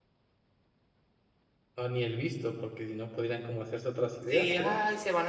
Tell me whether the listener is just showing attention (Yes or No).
No